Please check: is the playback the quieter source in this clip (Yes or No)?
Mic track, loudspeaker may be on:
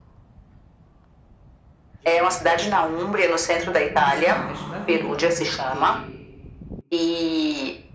No